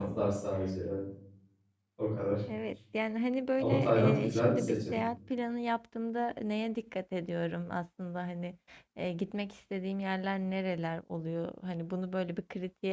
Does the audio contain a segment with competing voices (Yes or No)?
Yes